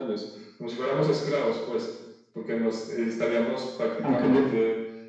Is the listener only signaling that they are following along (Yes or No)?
Yes